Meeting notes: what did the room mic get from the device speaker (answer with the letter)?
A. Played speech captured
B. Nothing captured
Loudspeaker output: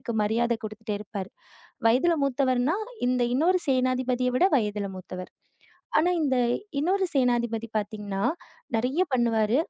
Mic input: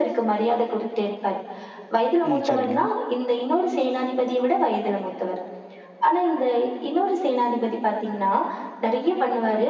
A